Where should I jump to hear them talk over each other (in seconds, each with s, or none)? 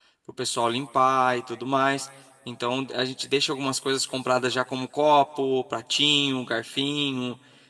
none